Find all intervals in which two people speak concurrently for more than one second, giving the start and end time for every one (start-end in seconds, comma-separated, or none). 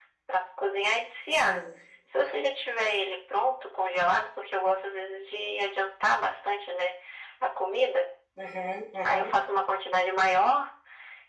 none